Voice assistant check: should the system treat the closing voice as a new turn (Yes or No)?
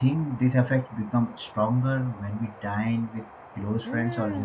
Yes